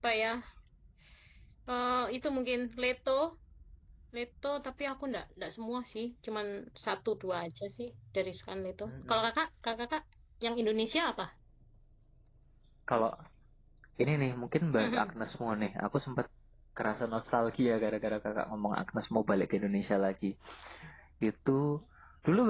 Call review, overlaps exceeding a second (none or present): none